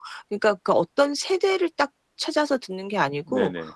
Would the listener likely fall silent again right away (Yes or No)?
Yes